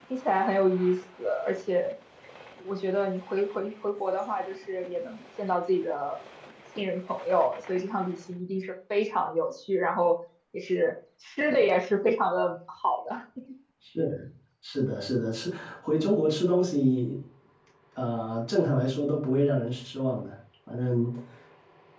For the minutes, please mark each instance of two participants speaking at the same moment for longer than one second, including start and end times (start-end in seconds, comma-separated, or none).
none